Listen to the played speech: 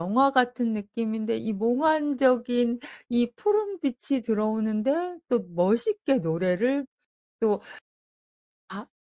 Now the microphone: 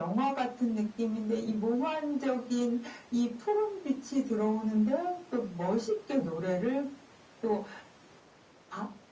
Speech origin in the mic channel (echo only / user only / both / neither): echo only